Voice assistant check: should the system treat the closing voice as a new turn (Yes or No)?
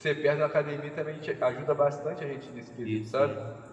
Yes